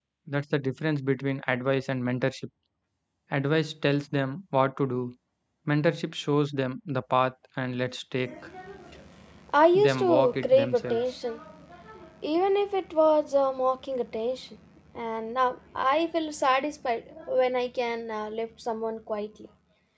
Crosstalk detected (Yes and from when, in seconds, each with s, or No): Yes, from 9.8 s